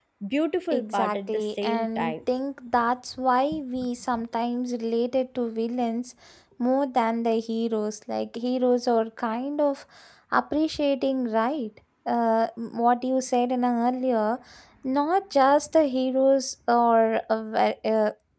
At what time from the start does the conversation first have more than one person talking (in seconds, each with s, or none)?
0.7 s